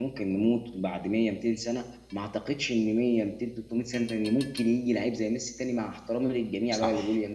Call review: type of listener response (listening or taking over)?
listening